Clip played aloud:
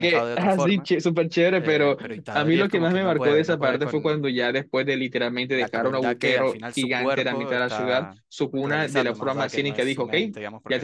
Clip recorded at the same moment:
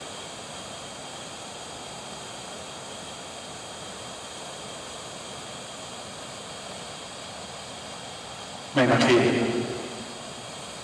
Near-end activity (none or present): present